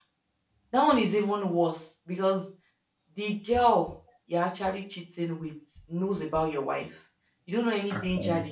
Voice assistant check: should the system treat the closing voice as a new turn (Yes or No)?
No